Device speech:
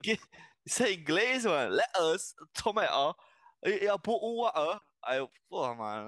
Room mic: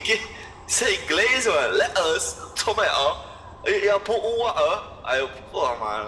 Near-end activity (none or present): none